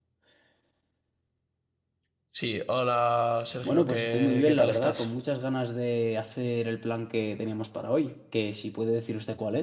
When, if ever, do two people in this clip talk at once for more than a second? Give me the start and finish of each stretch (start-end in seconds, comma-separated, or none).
3.6-5.1